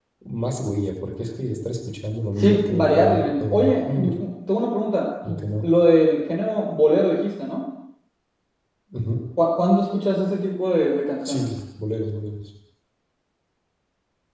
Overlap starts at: 2.4 s

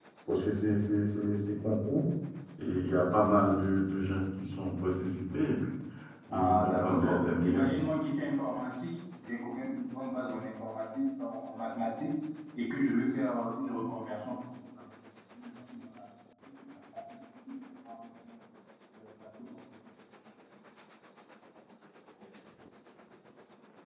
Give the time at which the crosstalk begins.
6.3 s

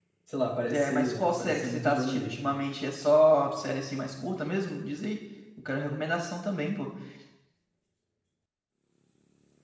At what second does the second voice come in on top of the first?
0.7 s

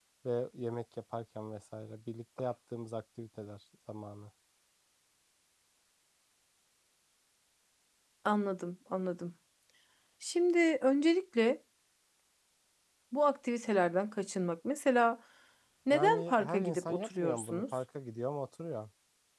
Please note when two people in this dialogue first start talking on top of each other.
15.9 s

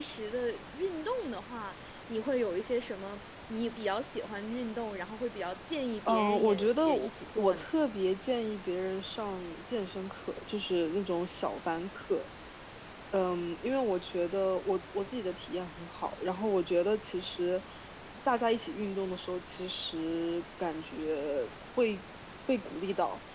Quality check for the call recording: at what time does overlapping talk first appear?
6.0 s

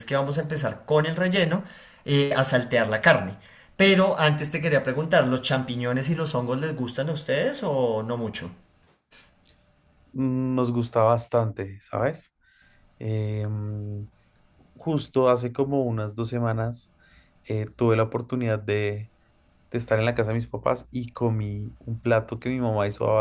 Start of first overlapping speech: none

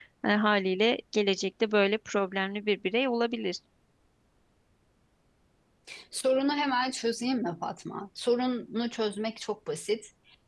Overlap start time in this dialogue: none

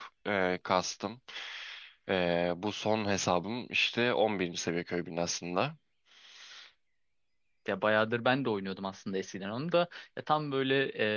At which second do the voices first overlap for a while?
none

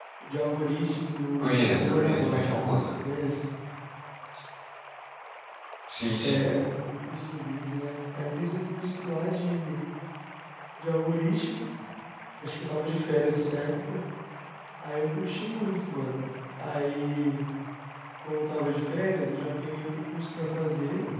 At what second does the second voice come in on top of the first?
1.4 s

